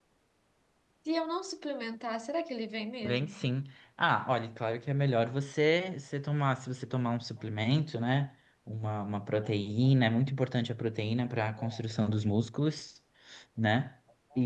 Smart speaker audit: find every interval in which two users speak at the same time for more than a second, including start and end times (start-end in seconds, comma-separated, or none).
none